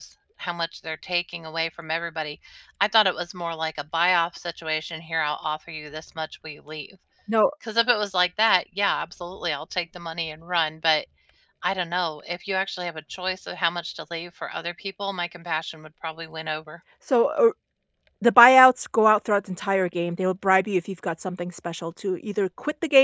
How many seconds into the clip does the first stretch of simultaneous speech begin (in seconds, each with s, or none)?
none